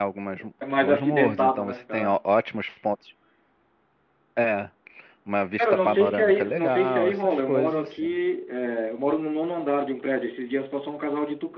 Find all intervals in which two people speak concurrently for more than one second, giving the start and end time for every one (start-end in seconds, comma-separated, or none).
0.8-2.2, 5.6-8.1